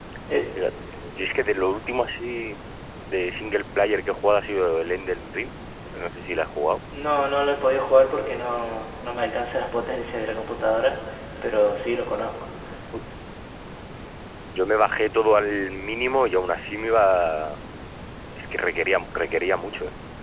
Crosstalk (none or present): none